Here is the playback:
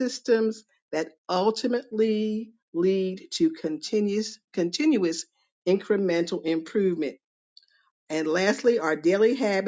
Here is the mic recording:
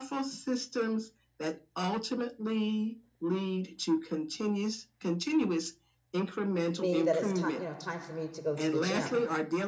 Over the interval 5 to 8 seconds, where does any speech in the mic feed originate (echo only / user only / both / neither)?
both